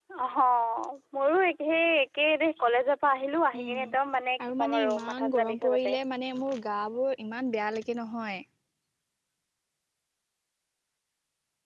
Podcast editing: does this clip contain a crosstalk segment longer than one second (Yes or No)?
Yes